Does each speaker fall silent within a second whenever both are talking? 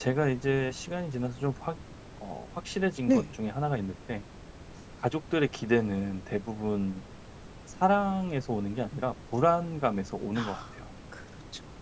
Yes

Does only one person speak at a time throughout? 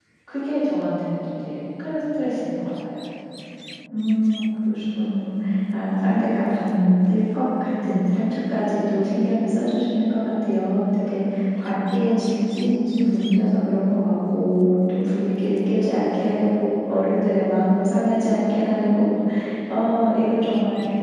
Yes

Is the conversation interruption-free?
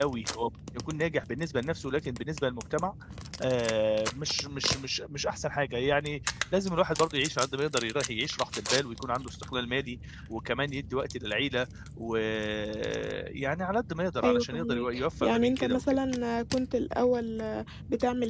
No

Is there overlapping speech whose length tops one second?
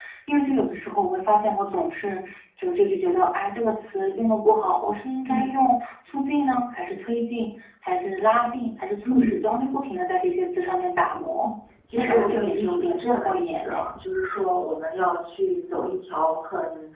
Yes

